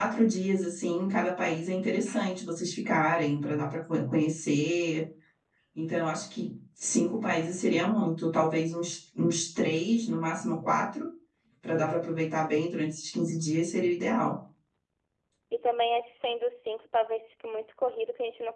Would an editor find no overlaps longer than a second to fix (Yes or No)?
Yes